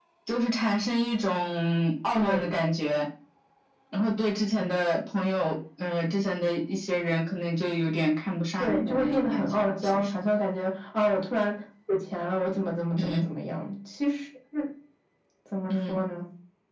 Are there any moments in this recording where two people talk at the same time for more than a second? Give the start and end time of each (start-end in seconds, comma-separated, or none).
8.6-10.1